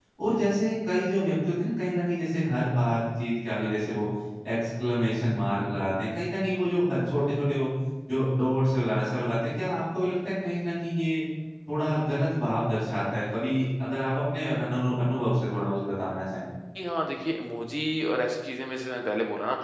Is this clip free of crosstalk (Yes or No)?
Yes